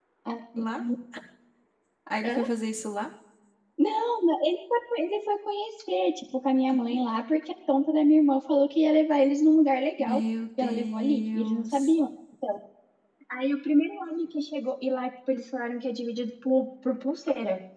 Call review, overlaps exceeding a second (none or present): present